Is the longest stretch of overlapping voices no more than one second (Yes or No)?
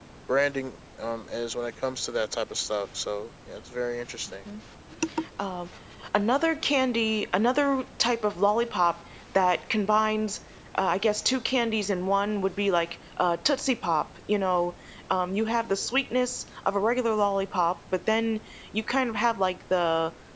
Yes